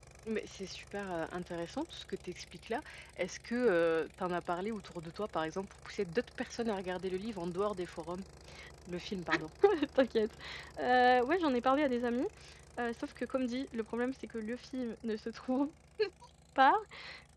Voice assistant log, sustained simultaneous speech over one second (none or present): none